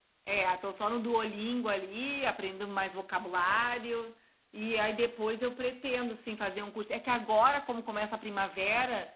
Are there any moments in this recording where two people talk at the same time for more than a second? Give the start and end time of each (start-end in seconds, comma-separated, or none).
none